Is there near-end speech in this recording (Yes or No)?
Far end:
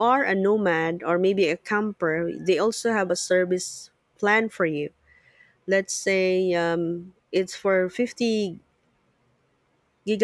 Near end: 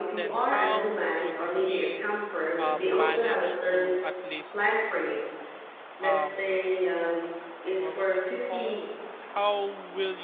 Yes